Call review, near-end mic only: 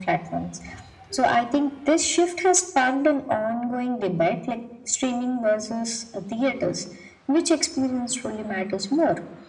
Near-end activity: none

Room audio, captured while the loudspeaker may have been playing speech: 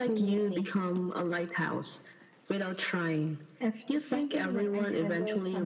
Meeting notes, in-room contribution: none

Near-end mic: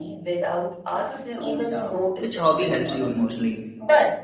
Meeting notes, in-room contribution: present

